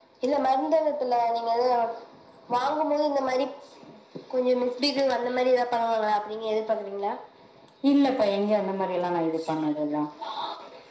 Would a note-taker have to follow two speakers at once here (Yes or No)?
No